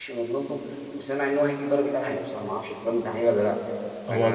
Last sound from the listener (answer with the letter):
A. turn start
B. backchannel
A